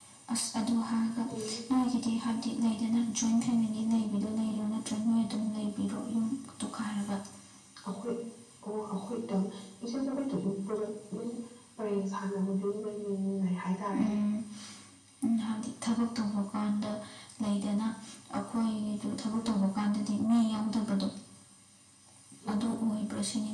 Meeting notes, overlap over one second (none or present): none